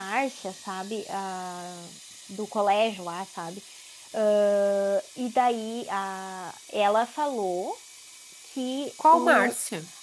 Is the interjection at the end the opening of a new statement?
No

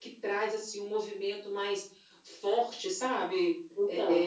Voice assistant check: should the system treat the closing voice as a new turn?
No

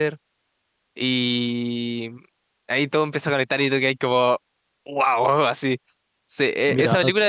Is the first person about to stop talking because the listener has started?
No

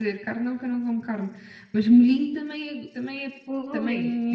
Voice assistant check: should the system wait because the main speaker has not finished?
No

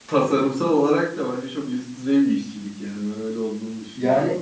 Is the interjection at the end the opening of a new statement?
Yes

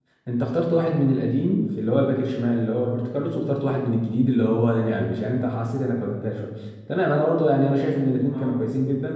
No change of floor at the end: Yes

